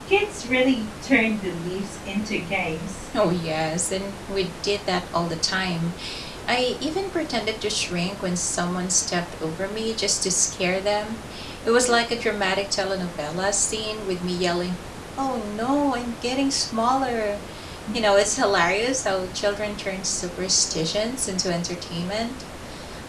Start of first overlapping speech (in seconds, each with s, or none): none